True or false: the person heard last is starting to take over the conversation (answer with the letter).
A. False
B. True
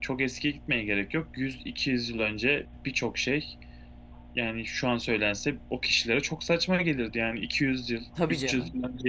A